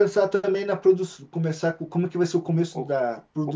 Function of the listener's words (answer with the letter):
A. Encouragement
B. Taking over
B